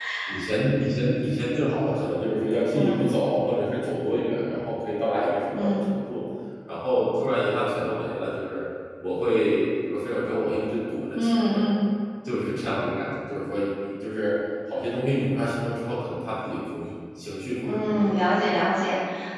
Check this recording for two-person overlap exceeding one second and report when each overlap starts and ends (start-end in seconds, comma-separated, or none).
none